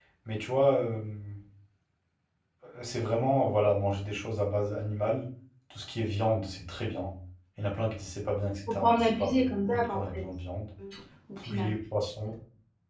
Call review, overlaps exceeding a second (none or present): present